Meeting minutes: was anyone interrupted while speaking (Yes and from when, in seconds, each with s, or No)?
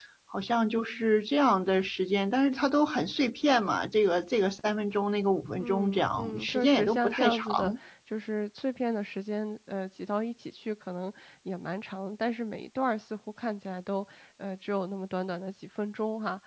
Yes, from 5.6 s